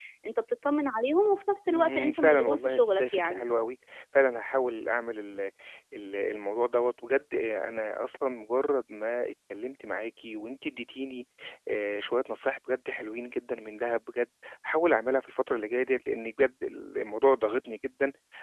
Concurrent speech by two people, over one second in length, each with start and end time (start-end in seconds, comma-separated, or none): 1.7-3.4